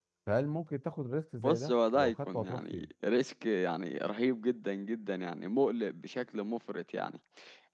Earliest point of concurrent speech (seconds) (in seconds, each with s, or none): 1.4 s